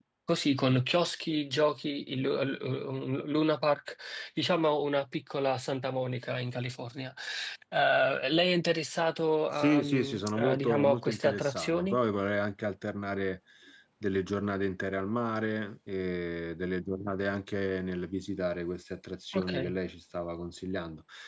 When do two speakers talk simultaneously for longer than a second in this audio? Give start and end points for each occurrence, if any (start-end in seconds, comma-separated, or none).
9.5-12.0